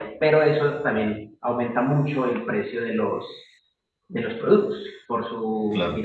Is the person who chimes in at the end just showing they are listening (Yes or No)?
Yes